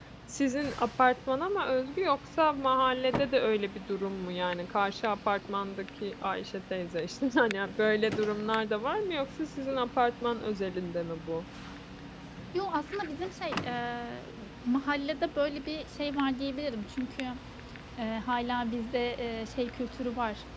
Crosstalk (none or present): none